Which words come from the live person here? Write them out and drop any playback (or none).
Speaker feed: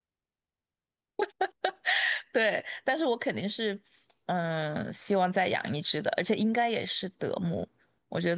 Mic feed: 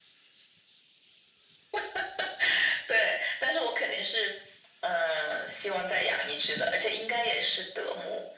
none